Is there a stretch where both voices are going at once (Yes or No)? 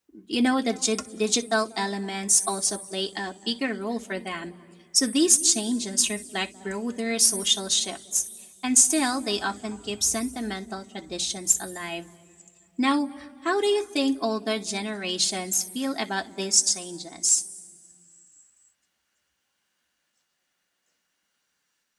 No